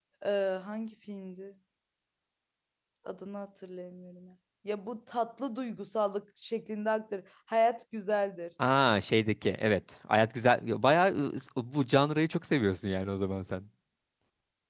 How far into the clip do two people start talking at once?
none

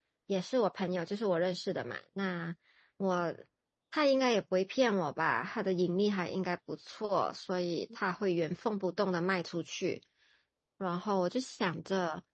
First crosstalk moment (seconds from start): none

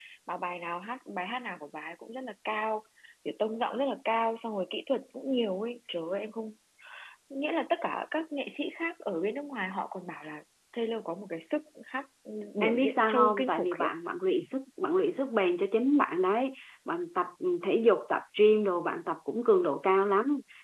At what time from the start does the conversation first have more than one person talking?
12.6 s

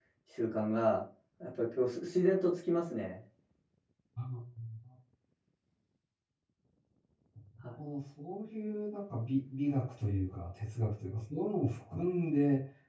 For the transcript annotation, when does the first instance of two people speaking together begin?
none

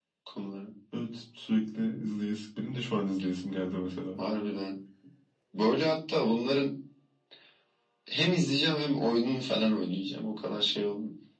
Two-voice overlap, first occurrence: none

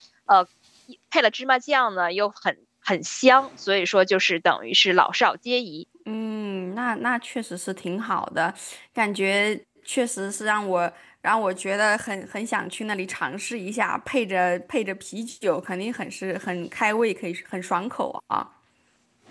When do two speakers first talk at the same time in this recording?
none

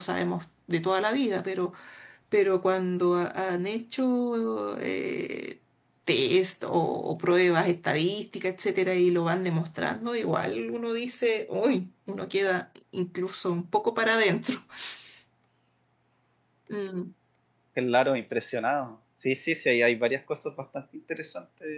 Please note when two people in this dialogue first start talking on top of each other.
none

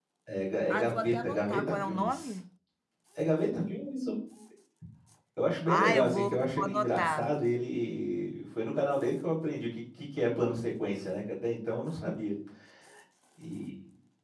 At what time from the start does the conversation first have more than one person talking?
0.7 s

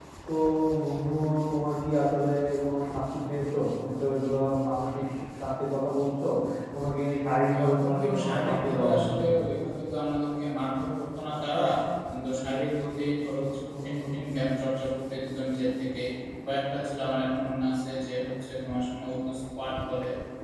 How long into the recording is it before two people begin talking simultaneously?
7.6 s

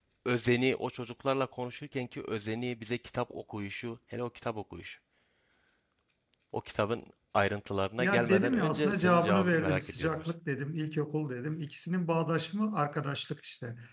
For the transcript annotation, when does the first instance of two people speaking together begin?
8.0 s

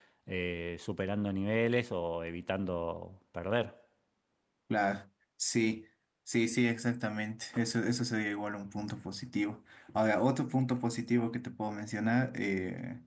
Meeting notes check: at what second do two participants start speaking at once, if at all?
none

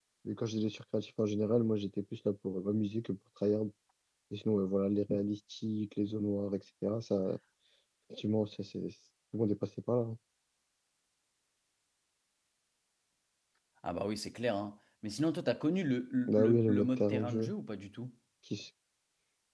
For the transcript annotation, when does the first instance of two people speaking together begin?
16.3 s

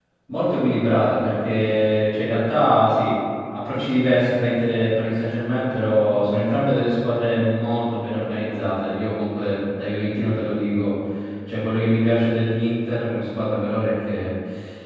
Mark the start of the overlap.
none

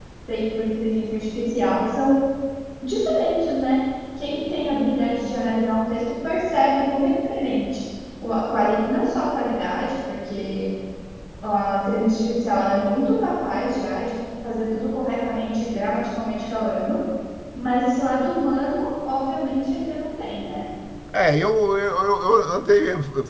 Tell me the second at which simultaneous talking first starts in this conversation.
none

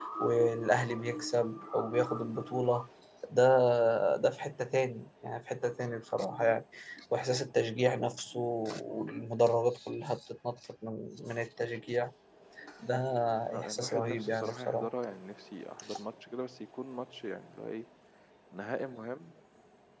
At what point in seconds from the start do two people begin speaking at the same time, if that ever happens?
13.6 s

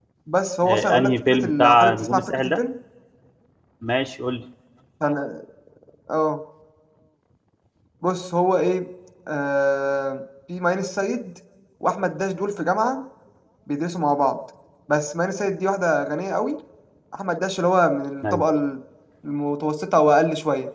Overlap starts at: 0.7 s

